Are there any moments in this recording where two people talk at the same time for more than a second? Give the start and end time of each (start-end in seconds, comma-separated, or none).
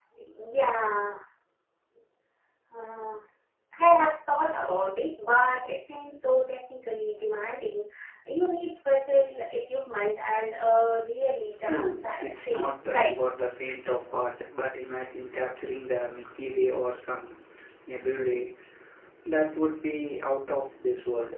11.6-13.2